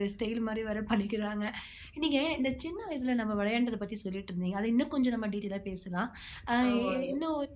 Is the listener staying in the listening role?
Yes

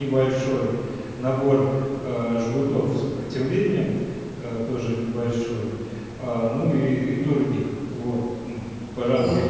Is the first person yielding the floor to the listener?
Yes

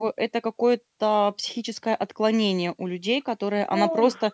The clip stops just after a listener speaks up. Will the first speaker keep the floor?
Yes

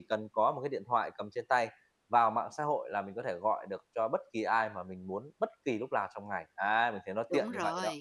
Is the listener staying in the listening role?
No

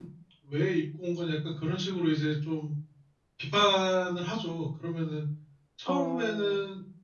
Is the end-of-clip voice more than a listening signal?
No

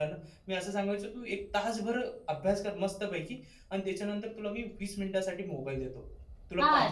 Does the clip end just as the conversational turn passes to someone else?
Yes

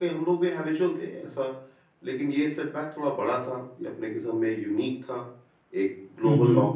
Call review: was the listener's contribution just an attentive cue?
Yes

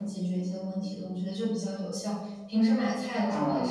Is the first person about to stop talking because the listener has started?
No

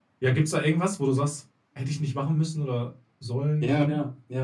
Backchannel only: No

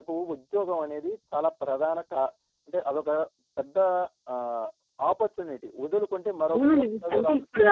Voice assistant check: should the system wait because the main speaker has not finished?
No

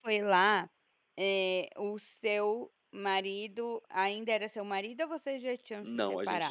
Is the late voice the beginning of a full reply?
Yes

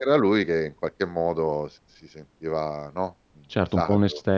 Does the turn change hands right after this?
Yes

